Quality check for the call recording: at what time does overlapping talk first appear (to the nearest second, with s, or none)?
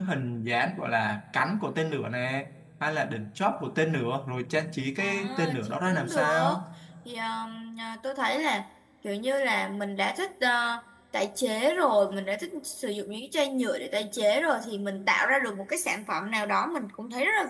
5 s